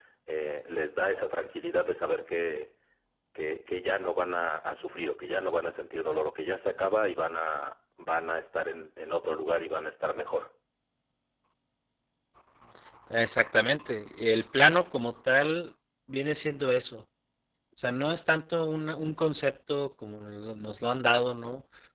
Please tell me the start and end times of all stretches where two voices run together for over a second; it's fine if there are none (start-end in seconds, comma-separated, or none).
none